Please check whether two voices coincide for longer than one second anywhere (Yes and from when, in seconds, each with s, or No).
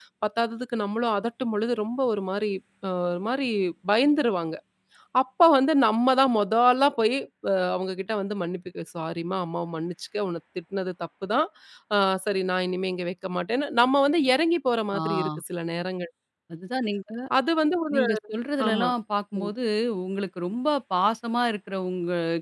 No